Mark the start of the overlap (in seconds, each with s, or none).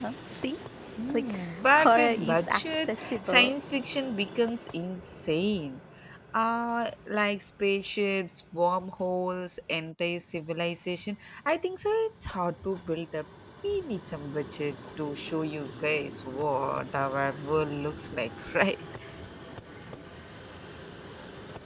1.1 s